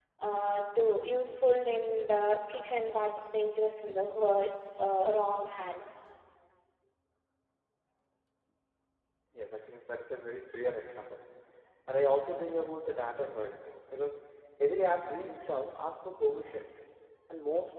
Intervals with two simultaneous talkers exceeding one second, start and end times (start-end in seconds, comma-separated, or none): none